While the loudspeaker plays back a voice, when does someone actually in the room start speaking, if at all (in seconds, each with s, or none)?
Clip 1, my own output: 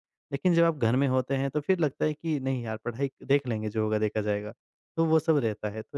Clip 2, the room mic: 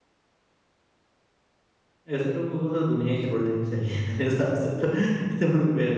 2.2 s